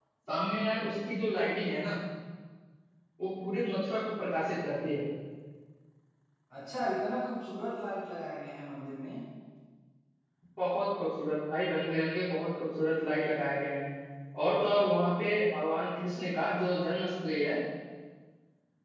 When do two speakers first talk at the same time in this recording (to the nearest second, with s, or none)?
none